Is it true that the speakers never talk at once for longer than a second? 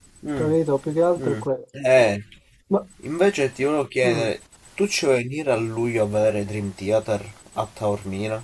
Yes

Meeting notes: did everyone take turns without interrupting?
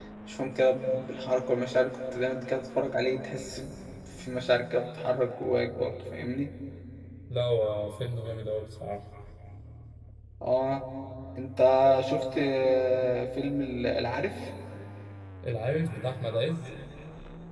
Yes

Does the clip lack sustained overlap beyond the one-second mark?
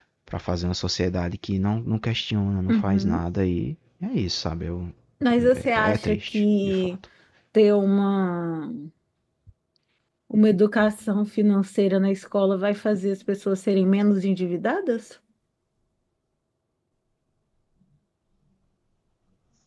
No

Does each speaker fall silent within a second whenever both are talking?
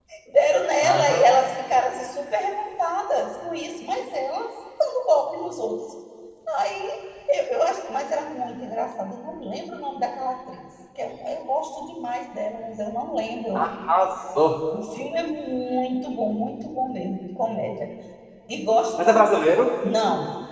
Yes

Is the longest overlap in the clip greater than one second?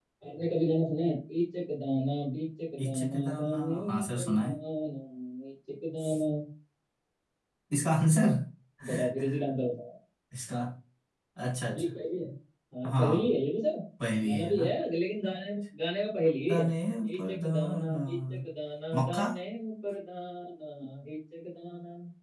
Yes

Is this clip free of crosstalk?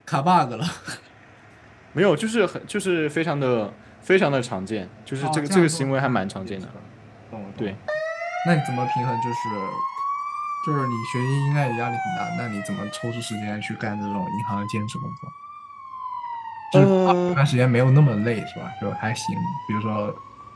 No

